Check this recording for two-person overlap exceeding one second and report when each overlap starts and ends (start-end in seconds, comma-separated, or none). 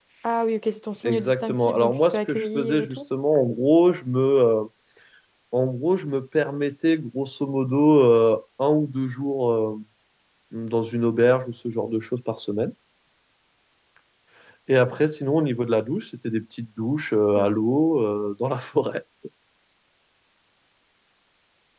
1.0-3.0